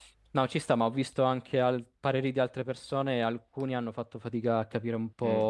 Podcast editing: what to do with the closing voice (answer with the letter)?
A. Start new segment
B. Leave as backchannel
B